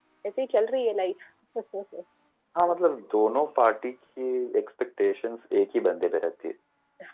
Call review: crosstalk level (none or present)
none